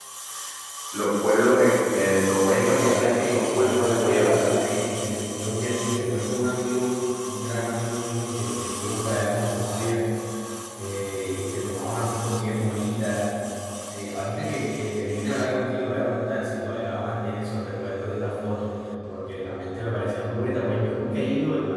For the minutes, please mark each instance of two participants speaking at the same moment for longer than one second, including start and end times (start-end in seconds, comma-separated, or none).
2.5-4.5